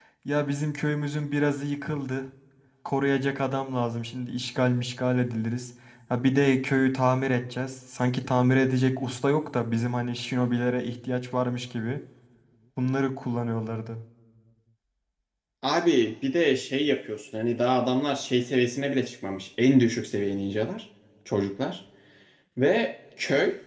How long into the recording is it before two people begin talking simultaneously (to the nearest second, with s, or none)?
none